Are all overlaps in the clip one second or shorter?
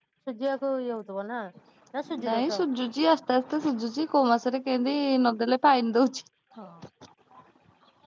Yes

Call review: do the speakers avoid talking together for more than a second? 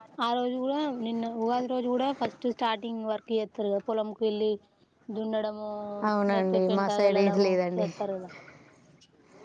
No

